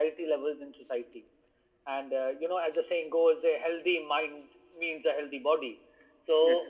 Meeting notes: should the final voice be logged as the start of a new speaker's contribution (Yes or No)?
No